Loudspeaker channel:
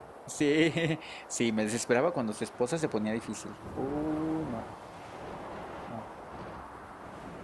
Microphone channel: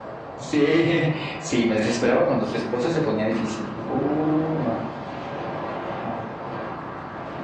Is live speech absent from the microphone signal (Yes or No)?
Yes